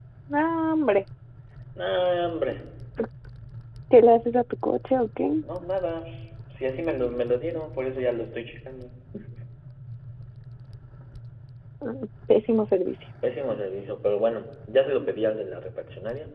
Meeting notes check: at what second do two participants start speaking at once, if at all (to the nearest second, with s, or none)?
none